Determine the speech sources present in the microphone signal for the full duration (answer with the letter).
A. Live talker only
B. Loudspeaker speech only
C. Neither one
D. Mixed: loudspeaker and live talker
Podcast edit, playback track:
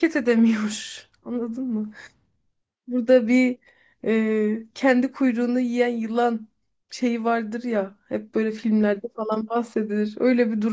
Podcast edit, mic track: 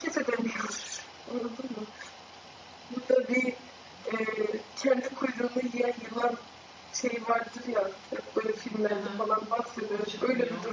D